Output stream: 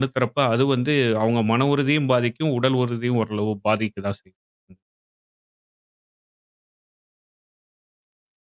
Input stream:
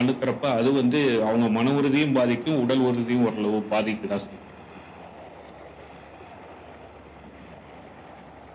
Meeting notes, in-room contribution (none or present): none